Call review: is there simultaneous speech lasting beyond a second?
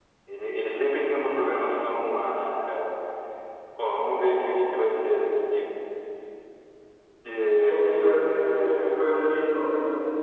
Yes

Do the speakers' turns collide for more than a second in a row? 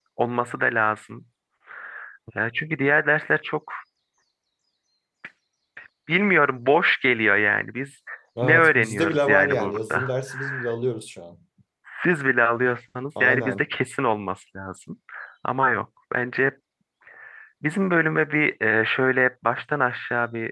Yes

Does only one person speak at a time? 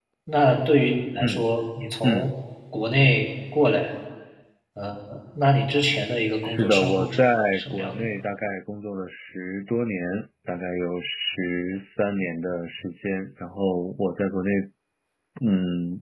No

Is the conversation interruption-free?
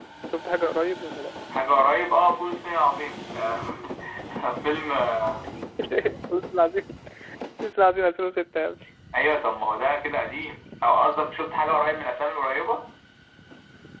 Yes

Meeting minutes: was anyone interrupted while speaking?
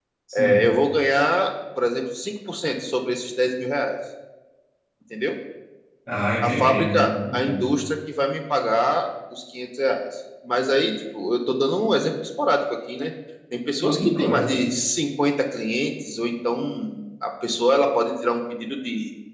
Yes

